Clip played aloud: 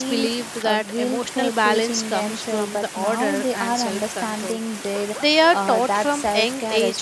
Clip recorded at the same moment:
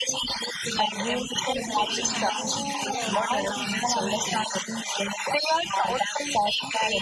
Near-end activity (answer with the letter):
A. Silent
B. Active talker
B